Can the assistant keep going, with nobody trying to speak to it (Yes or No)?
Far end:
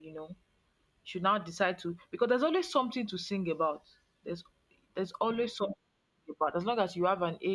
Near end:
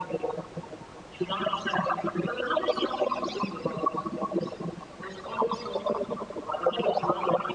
Yes